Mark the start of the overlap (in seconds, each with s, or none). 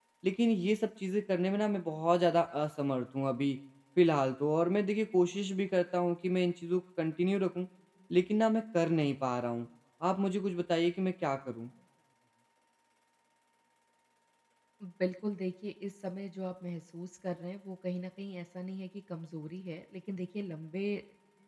none